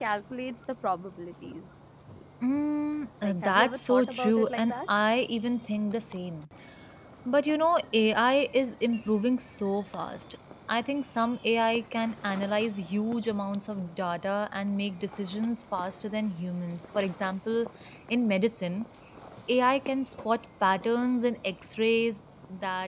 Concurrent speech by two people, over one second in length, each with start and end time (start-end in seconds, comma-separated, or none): 3.2-4.9